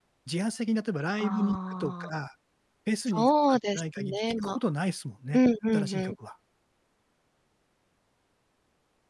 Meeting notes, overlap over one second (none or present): present